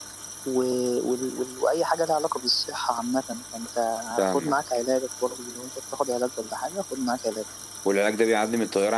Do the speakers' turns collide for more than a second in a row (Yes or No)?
No